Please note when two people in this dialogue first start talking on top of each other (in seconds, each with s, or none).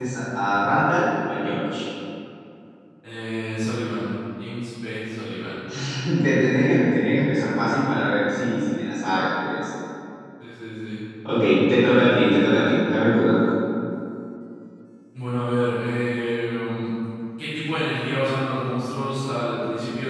none